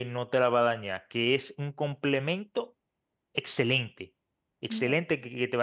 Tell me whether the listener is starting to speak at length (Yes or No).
No